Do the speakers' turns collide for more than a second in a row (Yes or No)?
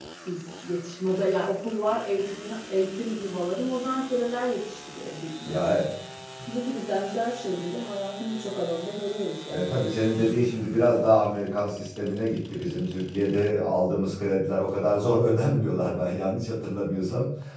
No